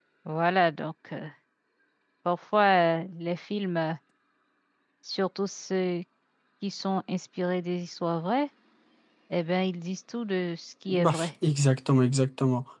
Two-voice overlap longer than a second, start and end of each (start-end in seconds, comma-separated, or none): none